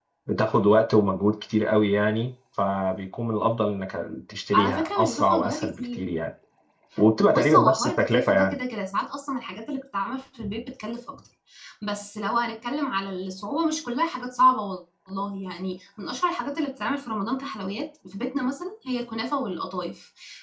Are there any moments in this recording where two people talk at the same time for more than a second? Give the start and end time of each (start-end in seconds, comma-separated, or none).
4.5-6.0, 7.3-8.6